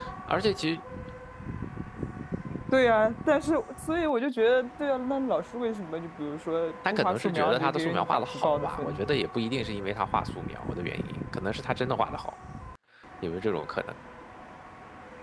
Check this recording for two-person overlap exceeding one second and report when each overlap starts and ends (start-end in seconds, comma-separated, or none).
6.9-9.0